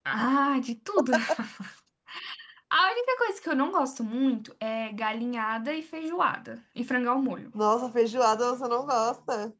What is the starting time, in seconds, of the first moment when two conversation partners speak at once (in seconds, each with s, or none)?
none